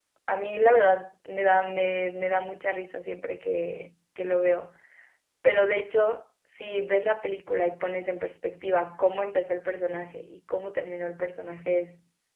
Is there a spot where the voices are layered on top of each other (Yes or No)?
No